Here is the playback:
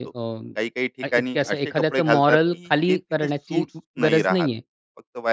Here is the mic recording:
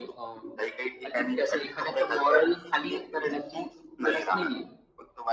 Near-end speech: none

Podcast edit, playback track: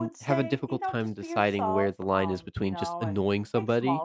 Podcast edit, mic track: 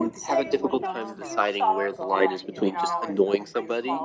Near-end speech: present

